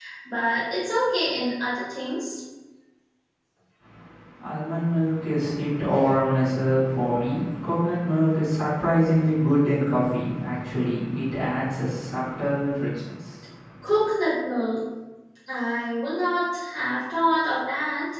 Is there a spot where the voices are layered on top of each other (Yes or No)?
No